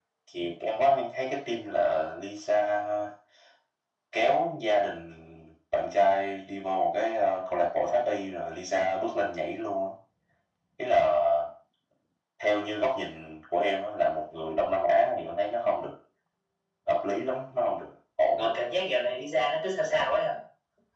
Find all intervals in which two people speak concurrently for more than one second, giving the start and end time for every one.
none

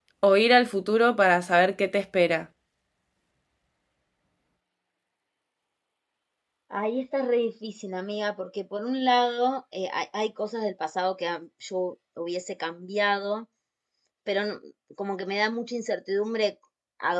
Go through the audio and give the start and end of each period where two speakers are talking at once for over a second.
none

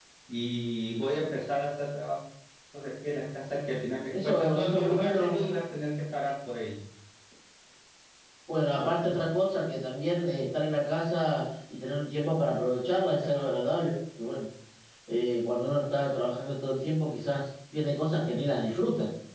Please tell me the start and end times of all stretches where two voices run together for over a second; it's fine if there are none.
4.1-5.4

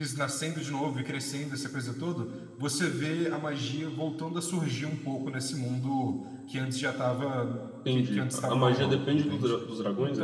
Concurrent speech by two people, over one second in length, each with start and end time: 7.9-9.6

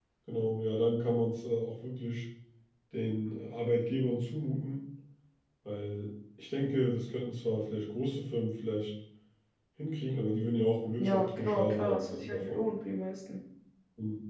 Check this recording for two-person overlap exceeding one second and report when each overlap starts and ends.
11.0-12.6

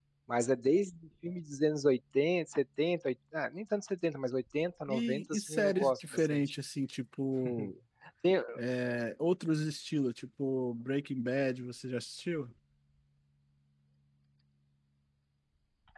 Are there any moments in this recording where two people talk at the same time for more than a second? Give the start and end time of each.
4.9-6.4

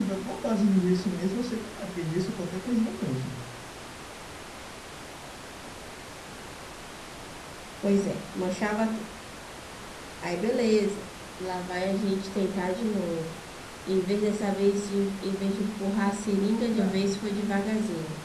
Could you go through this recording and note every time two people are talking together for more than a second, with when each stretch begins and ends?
none

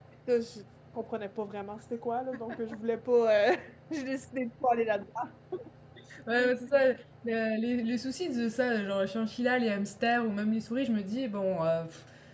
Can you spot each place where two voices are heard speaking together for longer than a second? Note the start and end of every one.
none

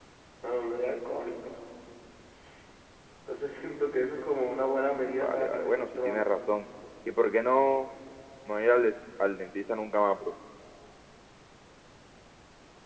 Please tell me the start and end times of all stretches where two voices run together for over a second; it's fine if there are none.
4.9-6.3

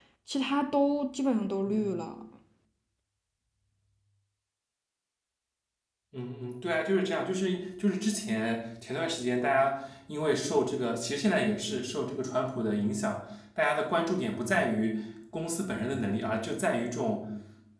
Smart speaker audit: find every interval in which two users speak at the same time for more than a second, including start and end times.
none

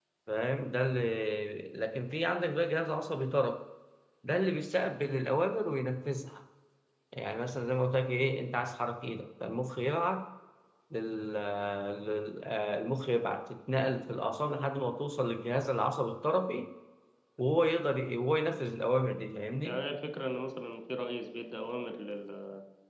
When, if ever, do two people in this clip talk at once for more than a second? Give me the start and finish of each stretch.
none

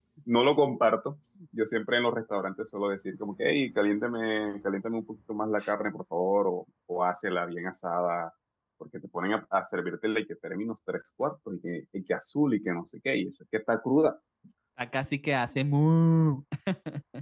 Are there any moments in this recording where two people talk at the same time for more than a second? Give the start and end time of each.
none

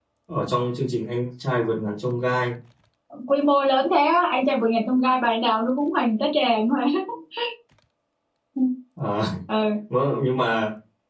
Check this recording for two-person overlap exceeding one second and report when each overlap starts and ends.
none

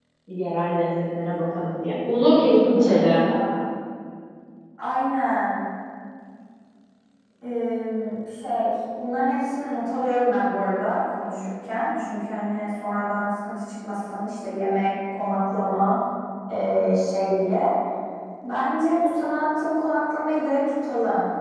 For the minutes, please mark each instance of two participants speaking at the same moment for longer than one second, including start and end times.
none

